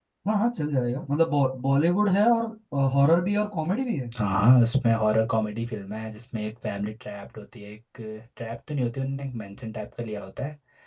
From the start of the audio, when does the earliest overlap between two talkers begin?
none

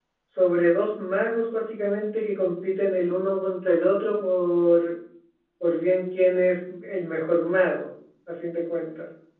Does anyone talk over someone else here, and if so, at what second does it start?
none

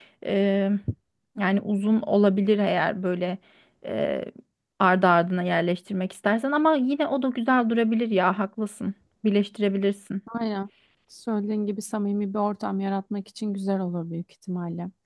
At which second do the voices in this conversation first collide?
none

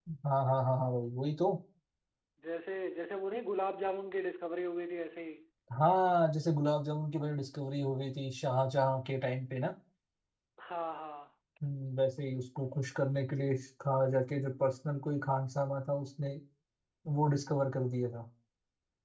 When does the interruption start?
none

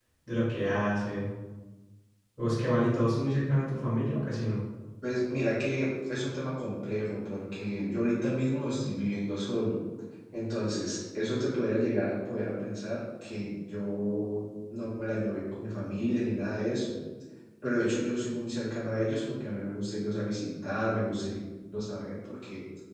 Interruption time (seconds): none

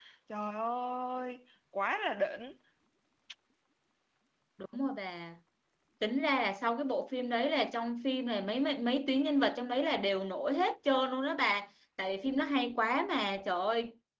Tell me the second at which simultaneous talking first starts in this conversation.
none

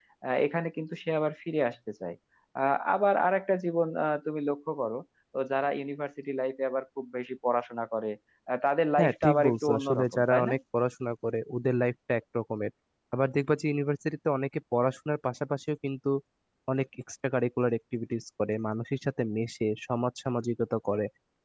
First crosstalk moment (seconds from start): 9.0 s

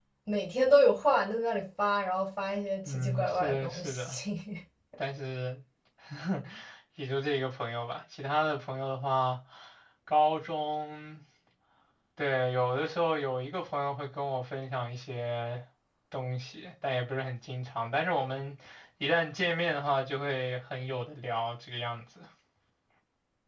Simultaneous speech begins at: 2.9 s

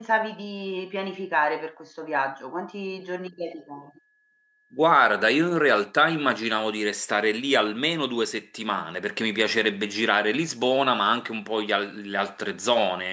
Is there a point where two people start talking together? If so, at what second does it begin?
none

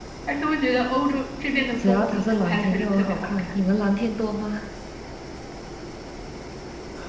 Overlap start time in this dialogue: 1.8 s

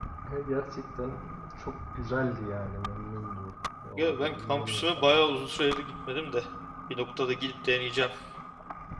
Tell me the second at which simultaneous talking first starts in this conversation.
4.0 s

